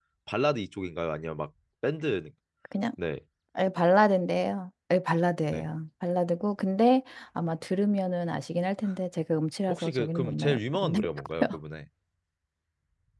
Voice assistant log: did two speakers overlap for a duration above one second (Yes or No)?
Yes